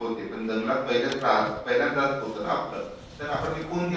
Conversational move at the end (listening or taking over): listening